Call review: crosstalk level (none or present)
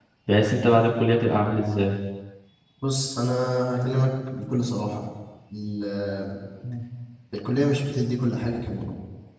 none